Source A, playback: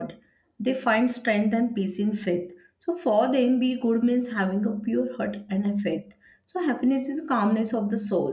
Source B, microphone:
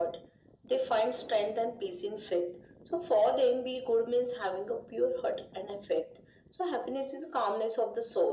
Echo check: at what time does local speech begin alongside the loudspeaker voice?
none

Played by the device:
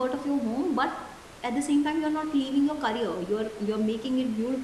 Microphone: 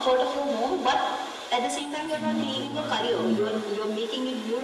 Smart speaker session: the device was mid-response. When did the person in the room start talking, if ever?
2.0 s

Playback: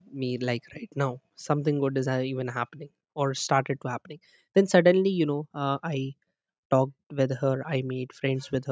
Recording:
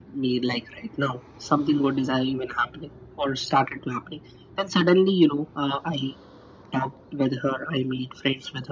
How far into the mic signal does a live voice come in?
none

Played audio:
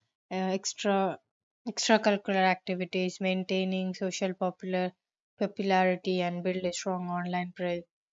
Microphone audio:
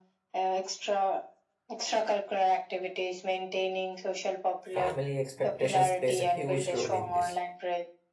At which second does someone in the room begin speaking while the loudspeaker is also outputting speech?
4.7 s

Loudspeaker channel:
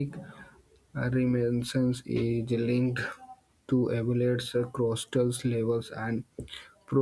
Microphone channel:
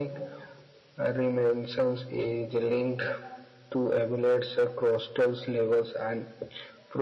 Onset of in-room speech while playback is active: none

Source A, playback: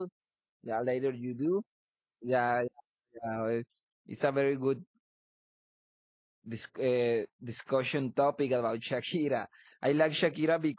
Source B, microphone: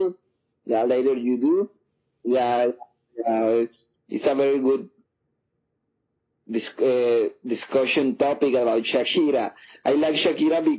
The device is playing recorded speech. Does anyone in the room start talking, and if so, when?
none

